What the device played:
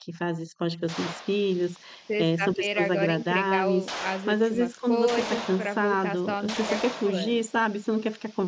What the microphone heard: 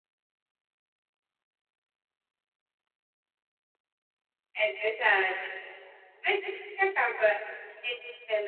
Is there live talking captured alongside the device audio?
Yes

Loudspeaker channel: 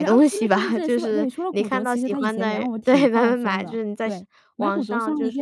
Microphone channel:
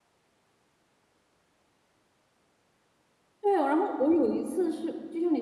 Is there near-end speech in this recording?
Yes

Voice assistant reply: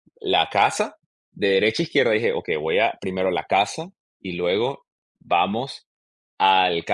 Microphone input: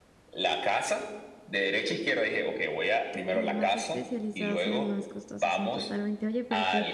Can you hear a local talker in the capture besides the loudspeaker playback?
Yes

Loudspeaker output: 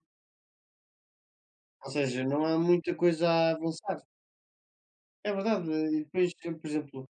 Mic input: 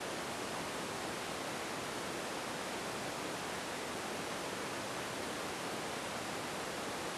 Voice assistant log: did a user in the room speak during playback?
No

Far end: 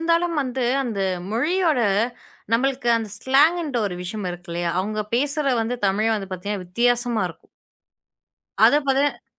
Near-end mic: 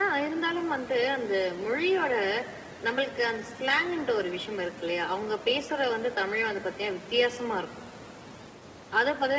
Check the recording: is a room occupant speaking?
No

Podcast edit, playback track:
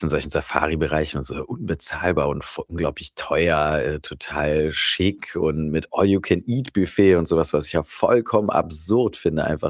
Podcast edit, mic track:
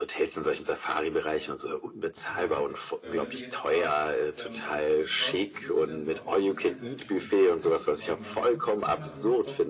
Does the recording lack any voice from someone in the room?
No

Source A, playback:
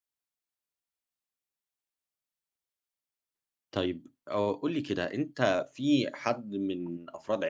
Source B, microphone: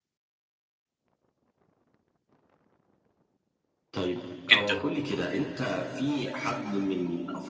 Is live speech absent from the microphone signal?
No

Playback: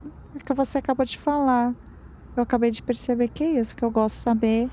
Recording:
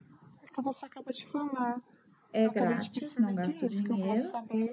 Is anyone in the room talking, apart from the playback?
Yes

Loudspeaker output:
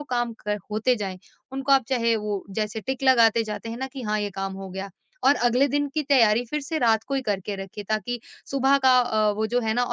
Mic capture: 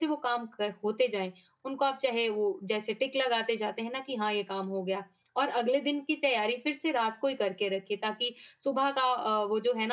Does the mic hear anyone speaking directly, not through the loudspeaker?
No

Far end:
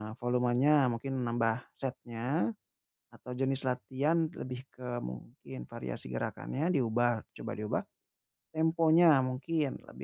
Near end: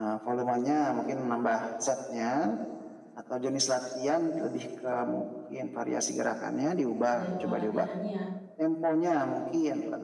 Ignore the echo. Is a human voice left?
Yes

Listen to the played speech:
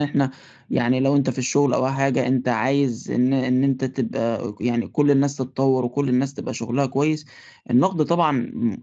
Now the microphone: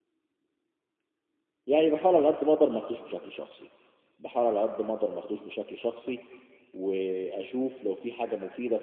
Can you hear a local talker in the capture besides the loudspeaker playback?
Yes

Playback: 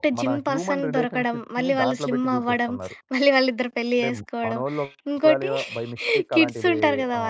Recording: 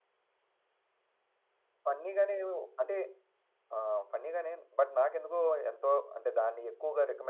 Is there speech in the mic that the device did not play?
Yes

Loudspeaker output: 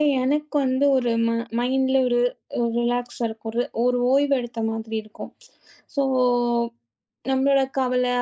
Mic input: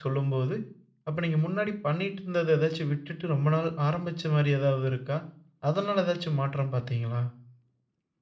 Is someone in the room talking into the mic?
Yes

